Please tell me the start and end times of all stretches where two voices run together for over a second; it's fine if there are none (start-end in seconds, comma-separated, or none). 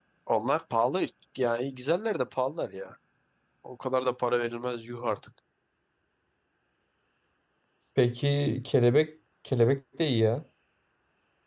none